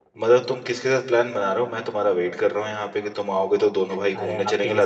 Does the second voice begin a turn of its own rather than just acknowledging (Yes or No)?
Yes